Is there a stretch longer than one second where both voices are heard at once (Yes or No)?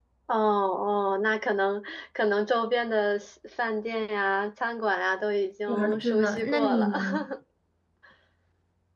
Yes